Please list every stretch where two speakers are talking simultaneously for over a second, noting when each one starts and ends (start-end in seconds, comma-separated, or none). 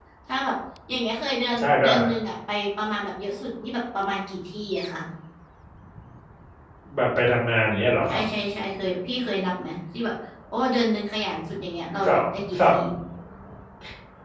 none